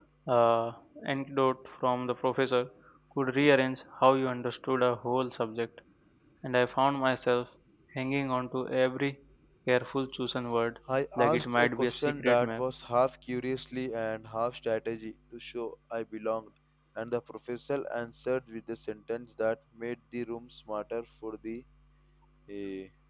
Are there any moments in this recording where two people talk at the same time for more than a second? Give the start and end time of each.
11.2-12.6

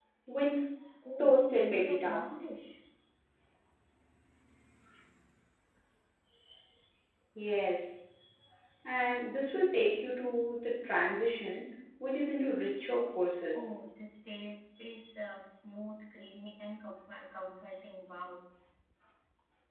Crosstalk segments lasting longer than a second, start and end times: 1.2-2.4

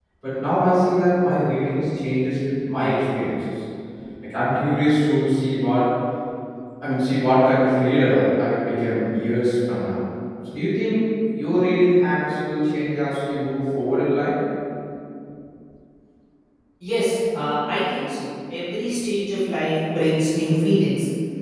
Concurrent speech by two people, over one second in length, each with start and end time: none

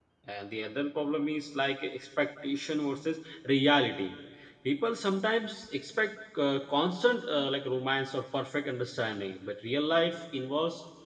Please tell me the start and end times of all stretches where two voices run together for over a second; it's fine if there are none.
none

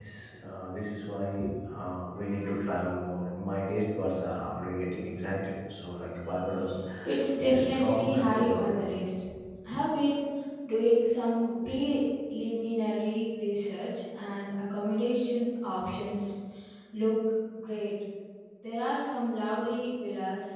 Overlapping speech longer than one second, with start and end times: 7.3-8.8

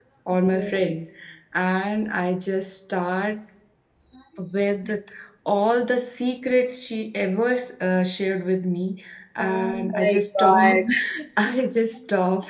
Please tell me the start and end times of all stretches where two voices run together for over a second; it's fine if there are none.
9.4-10.8

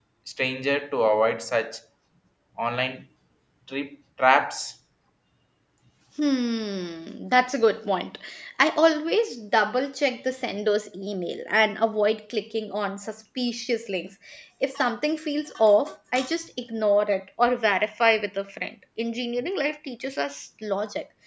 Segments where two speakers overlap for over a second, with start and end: none

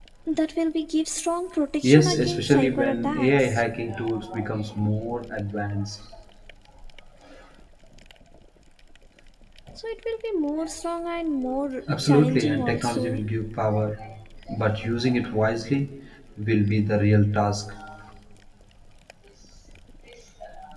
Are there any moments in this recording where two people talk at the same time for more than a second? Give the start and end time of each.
1.8-3.6, 12.0-13.2

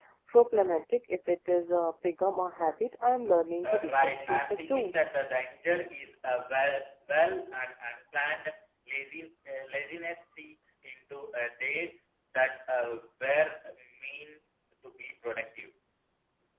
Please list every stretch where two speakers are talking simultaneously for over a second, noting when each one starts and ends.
3.6-4.9

